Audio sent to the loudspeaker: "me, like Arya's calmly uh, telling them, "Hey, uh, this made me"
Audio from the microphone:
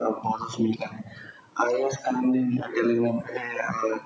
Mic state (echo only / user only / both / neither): echo only